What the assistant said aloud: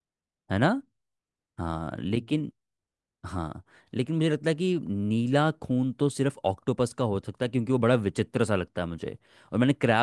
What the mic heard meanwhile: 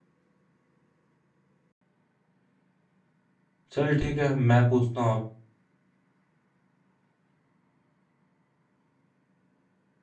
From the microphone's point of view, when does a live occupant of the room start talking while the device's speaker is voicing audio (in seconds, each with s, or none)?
3.7 s